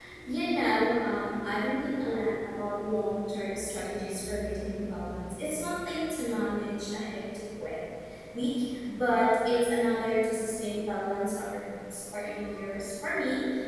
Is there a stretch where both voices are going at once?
No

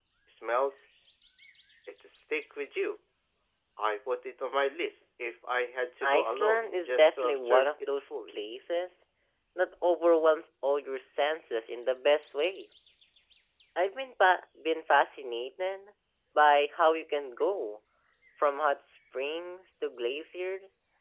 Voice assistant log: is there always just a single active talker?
No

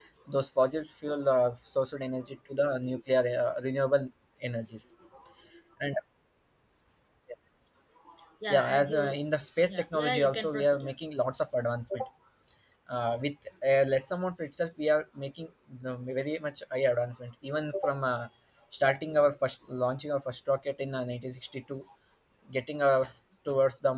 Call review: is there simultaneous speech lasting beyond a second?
Yes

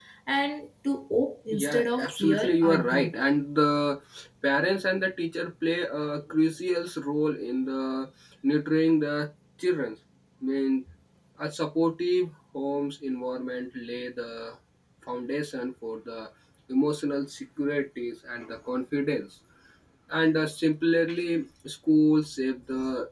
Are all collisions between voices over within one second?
No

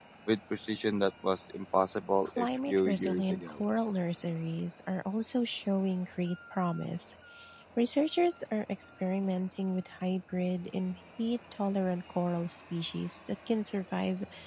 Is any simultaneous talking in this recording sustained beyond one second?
Yes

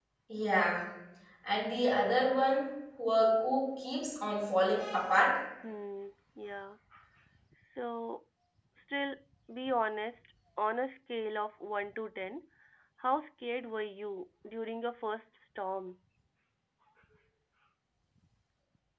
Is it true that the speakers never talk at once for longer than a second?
Yes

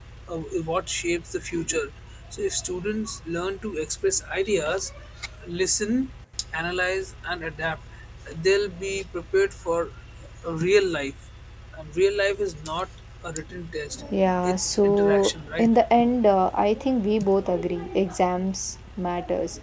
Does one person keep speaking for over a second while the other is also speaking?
Yes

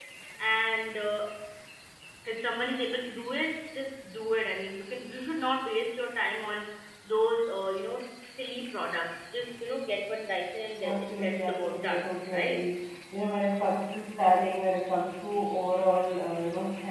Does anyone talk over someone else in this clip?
Yes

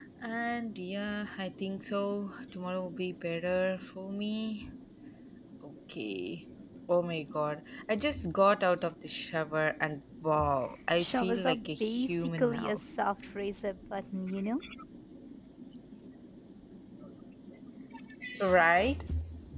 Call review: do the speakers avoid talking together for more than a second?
No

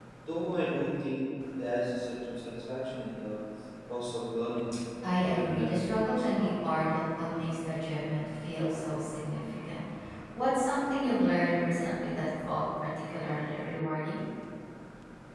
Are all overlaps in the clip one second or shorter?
No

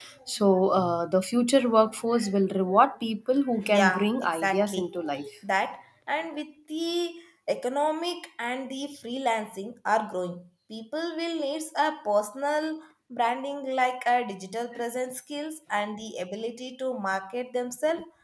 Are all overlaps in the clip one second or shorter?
No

